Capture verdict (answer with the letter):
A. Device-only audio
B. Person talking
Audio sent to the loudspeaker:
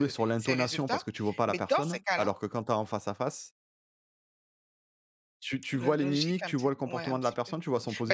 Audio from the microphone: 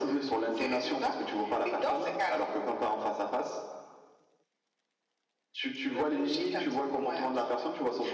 A